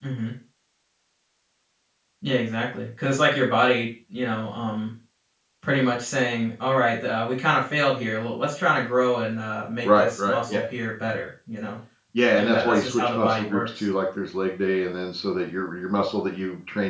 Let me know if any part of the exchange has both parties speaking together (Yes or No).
Yes